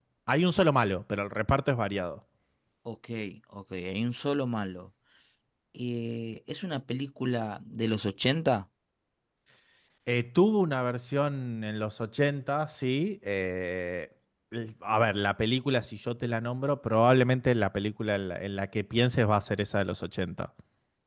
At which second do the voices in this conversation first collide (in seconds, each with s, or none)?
none